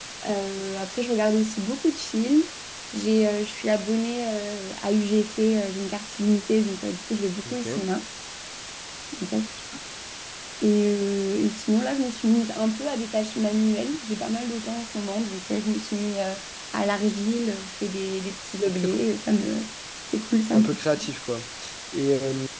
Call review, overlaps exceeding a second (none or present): none